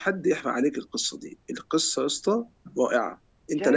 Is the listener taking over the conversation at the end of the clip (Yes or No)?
Yes